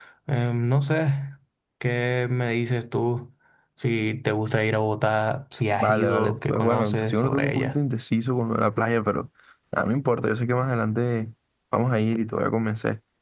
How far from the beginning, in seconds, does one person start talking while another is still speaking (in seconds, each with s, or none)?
5.7 s